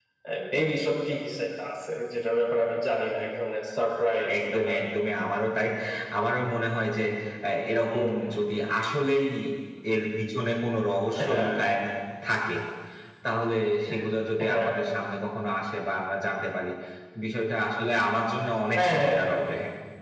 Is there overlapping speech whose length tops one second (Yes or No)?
No